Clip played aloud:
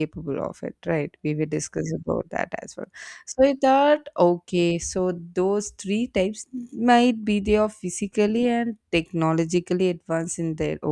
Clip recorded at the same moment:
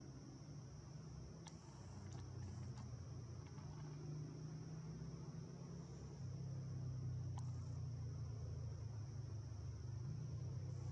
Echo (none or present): none